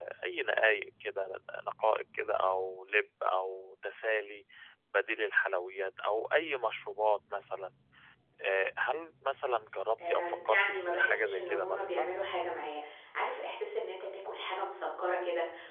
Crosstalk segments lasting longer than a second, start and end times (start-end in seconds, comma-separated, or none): 10.1-12.1